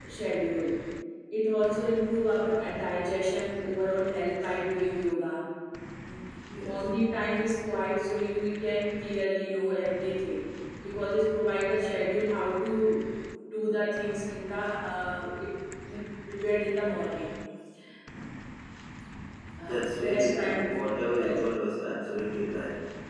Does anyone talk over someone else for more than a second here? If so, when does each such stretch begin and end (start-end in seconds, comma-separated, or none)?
19.7-21.4